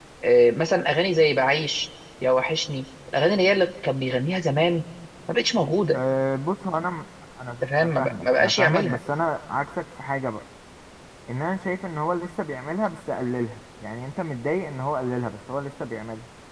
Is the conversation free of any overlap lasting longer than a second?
No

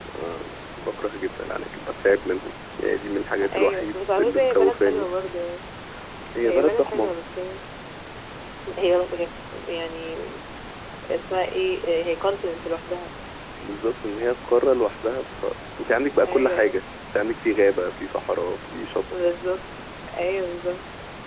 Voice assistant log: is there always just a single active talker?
No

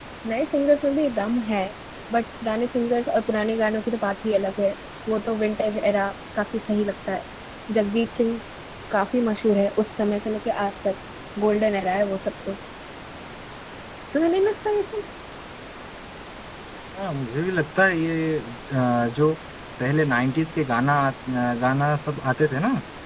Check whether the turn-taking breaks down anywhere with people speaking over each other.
No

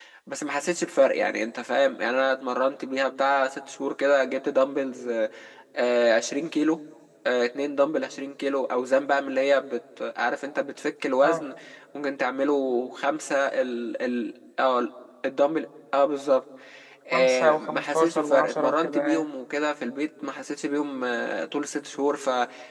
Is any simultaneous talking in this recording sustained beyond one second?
Yes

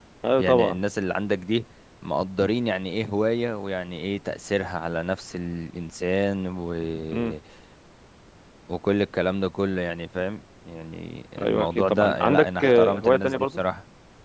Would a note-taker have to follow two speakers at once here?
Yes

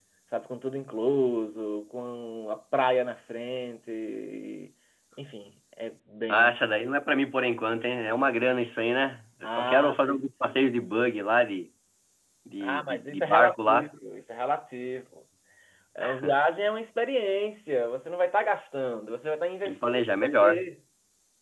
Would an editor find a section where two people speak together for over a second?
Yes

